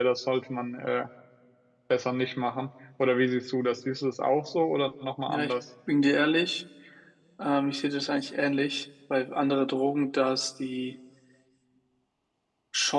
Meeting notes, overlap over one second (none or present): none